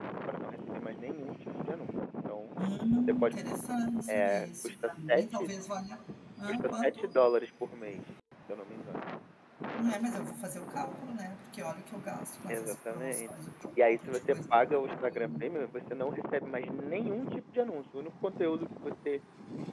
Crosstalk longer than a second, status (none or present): present